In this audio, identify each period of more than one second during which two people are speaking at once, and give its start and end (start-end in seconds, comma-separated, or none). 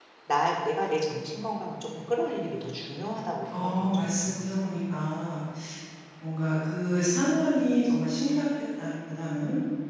3.5-4.8